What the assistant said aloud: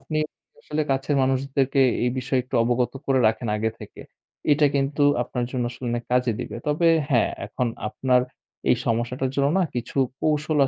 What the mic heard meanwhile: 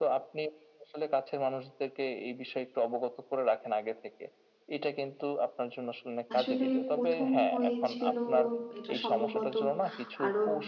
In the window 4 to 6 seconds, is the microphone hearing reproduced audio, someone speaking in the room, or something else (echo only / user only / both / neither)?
echo only